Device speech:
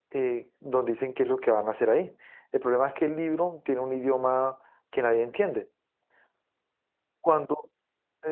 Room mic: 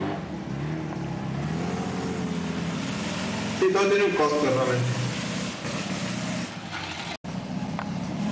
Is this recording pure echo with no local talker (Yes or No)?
No